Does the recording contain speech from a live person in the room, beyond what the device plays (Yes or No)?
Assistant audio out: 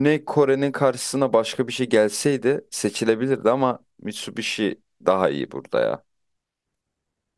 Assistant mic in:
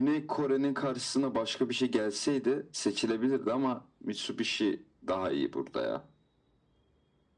No